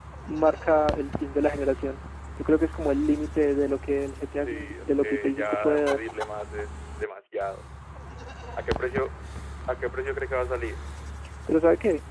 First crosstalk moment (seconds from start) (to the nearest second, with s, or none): 4 s